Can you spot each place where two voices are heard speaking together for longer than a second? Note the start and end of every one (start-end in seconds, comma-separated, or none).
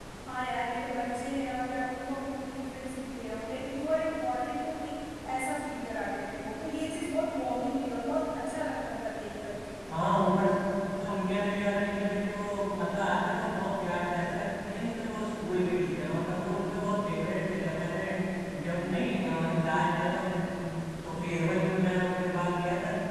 none